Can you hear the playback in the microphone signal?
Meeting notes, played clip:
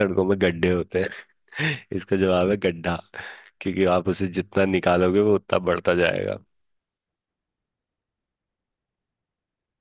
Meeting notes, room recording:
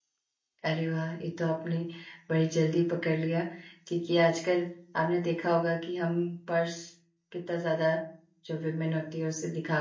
No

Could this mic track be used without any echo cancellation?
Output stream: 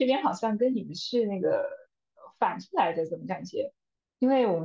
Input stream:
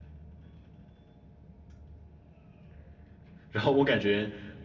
Yes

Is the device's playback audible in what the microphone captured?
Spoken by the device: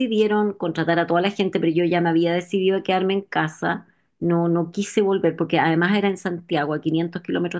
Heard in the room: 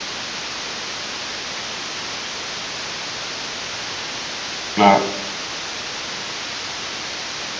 No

